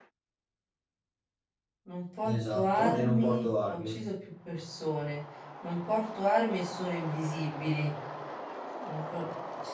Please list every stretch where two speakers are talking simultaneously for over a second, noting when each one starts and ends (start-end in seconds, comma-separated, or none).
2.2-3.9